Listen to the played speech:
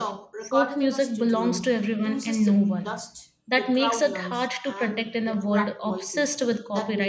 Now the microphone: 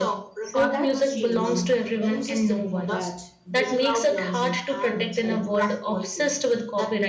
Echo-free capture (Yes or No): No